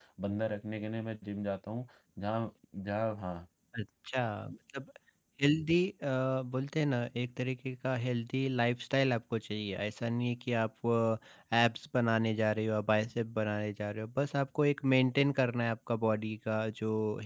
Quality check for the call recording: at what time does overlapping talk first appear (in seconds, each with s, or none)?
none